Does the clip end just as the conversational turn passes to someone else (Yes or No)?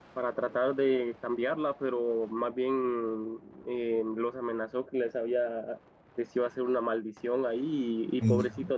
No